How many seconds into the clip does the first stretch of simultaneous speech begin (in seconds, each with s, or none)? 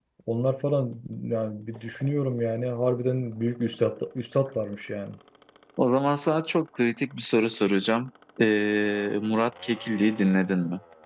none